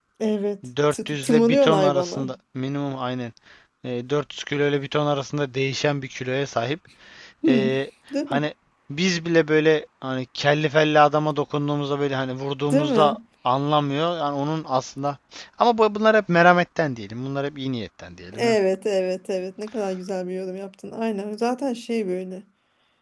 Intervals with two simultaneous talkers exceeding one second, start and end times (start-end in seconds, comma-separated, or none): 0.9-2.2